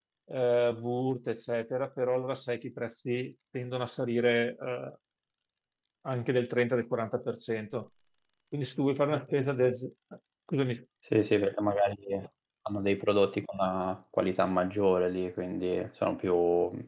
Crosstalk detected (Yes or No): No